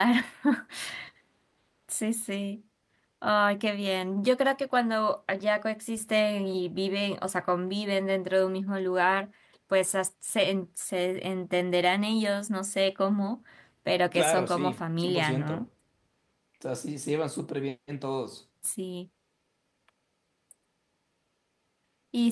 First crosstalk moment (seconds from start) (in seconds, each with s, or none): 14.1 s